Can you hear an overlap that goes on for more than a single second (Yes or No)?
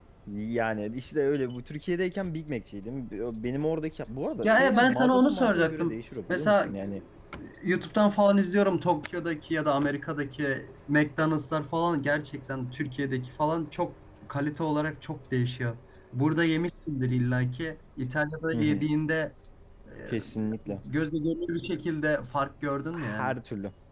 Yes